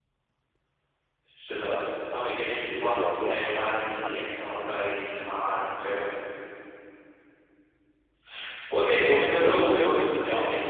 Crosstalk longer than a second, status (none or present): present